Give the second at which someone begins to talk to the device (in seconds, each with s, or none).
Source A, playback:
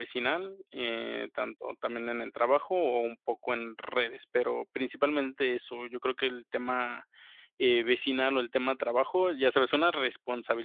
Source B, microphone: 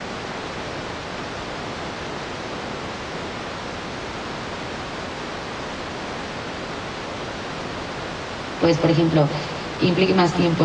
8.6 s